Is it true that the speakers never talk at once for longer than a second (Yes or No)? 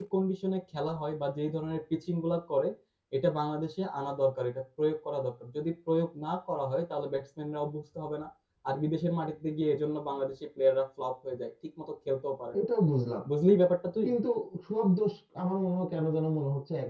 Yes